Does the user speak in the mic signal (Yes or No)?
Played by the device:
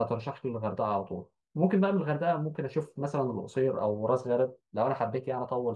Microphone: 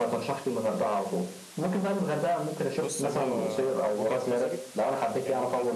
Yes